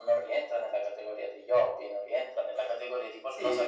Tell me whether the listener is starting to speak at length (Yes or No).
Yes